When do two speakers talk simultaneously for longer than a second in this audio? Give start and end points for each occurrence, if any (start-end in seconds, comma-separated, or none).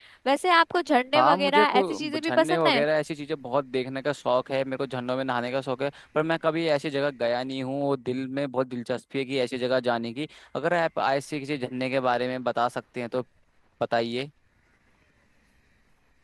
1.1-2.8